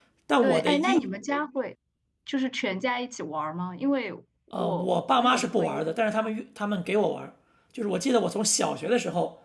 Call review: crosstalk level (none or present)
present